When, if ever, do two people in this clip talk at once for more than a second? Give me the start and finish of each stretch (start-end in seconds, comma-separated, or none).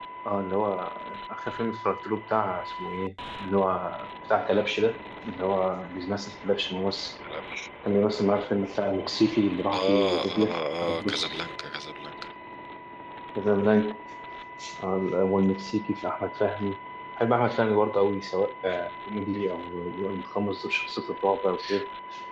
9.7-11.4